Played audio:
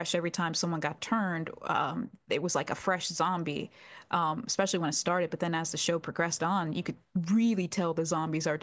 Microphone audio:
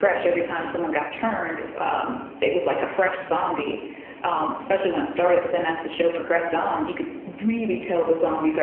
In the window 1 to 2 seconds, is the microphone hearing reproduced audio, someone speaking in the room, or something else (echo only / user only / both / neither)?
echo only